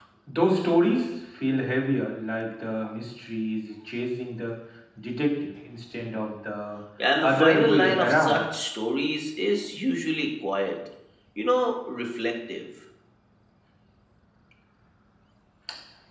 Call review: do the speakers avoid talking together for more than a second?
No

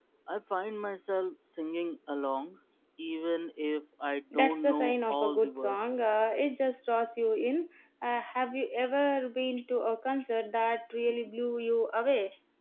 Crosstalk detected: Yes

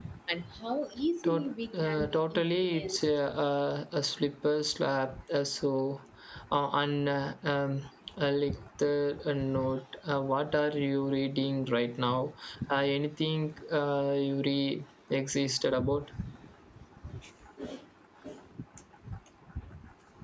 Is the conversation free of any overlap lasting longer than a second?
No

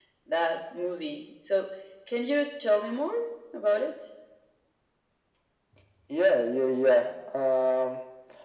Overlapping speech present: No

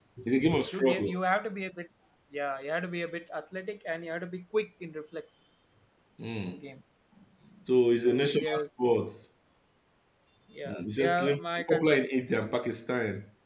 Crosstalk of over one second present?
Yes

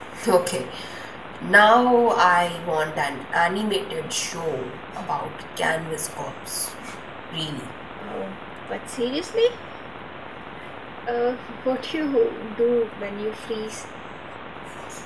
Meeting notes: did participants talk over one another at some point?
No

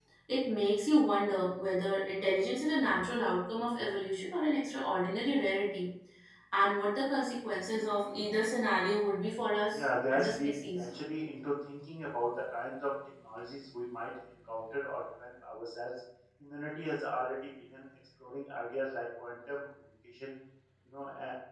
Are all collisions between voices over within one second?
No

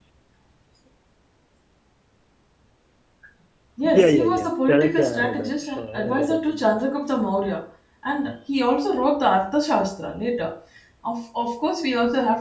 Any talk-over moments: Yes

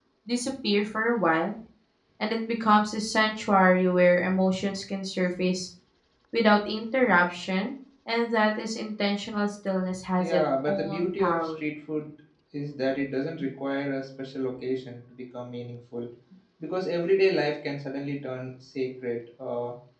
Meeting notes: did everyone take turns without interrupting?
No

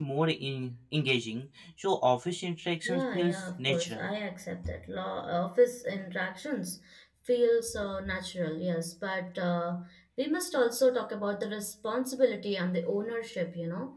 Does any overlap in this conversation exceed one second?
Yes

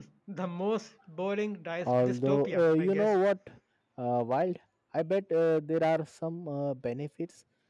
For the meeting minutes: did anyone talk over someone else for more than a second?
Yes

